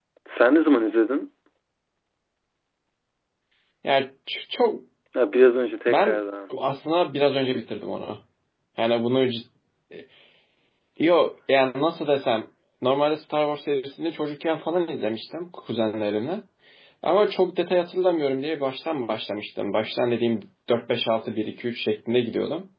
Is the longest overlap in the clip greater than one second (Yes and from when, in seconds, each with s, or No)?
No